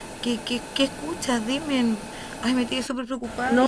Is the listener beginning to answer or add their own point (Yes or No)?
Yes